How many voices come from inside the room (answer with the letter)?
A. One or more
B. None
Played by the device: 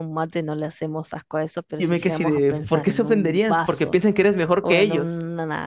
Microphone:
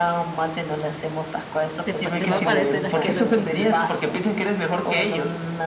A